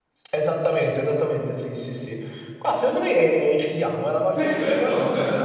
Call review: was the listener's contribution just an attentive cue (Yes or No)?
No